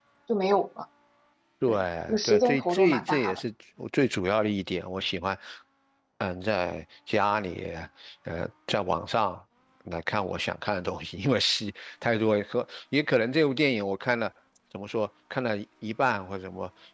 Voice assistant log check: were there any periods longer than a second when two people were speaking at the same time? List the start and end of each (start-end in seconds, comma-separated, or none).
1.7-3.4